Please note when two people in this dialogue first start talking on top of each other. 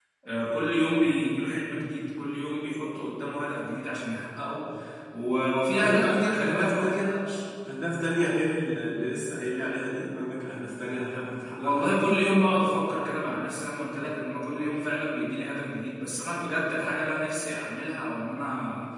5.8 s

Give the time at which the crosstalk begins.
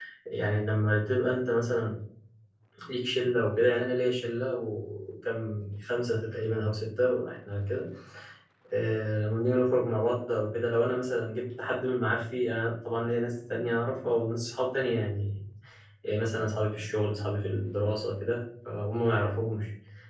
none

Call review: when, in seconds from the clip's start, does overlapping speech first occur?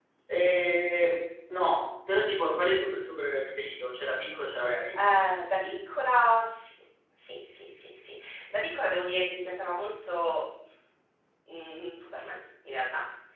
none

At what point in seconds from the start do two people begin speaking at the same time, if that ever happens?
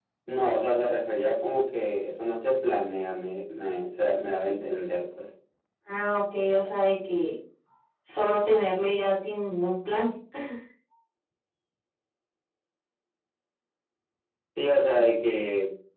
none

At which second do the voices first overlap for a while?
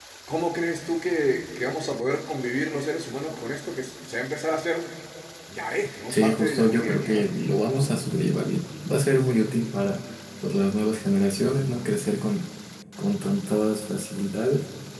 6.1 s

